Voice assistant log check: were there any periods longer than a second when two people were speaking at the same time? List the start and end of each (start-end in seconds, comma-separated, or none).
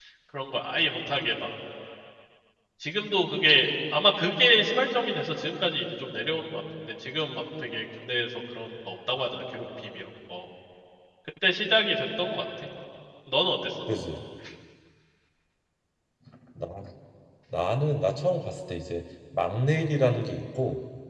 none